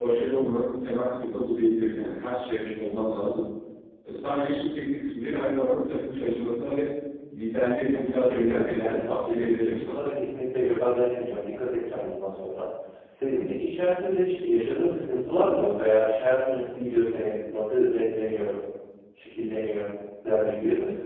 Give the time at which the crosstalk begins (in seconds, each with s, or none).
7.9 s